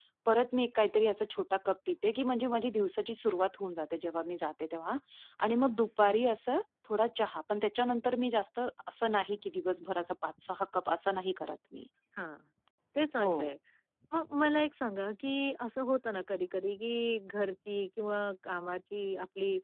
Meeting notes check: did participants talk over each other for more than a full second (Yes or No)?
No